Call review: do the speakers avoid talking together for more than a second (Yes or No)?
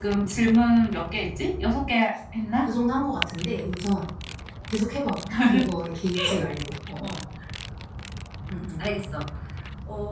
Yes